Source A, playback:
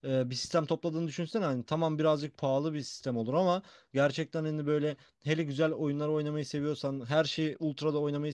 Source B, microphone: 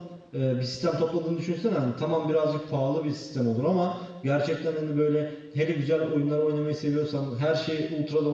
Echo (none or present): present